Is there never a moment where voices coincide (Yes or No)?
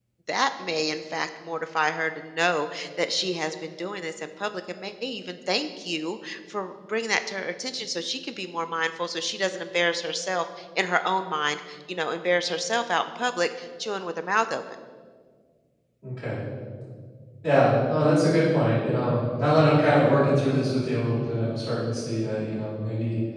Yes